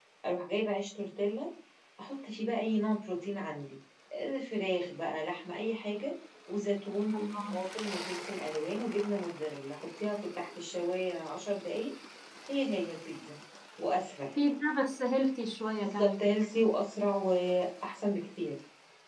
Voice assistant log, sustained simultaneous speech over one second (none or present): none